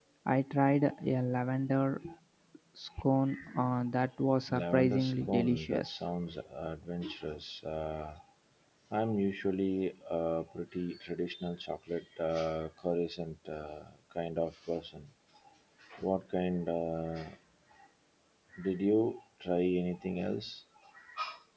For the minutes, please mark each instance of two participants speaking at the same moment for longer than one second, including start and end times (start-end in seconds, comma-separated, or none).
4.5-6.0